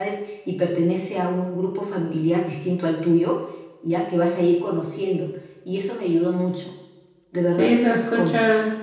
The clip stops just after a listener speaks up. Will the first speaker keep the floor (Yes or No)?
No